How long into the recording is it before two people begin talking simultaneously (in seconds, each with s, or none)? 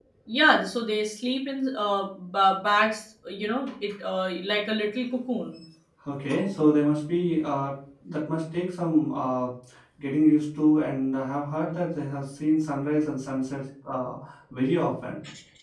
none